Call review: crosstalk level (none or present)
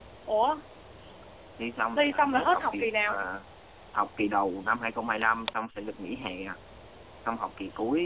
present